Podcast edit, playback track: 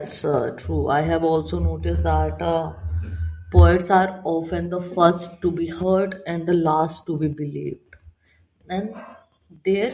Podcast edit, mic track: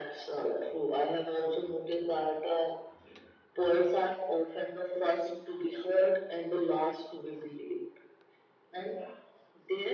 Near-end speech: none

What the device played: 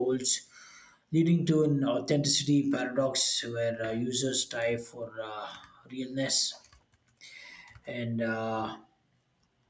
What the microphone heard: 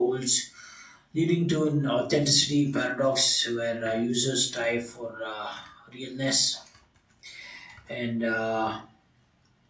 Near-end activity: none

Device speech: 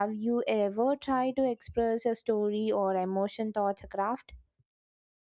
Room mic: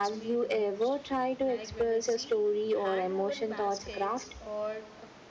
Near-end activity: present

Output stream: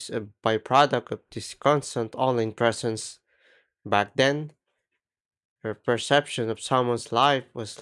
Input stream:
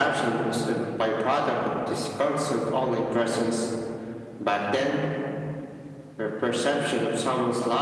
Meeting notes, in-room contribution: none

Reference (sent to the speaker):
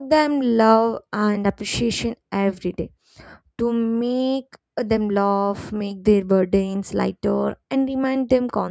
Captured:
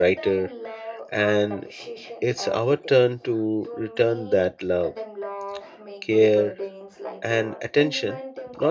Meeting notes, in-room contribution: present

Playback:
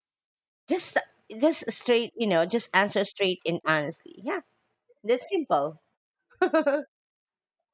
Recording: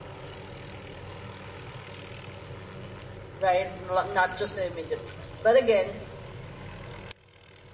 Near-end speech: present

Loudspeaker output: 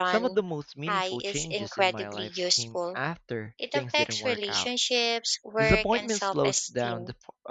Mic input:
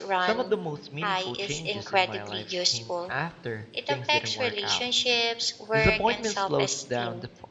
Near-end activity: none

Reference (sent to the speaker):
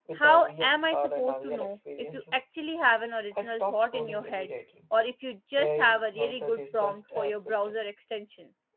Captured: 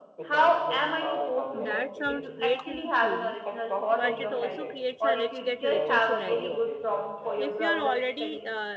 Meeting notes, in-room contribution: present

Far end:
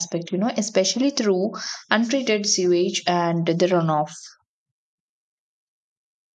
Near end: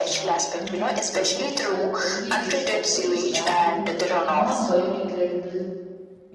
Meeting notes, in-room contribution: present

